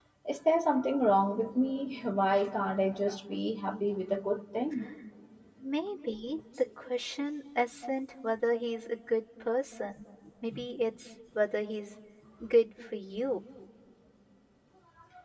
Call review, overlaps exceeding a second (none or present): none